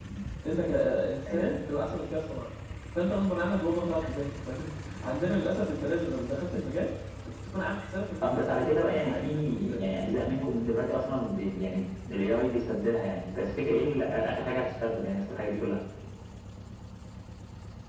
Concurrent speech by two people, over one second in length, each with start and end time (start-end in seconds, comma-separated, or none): 8.2-9.8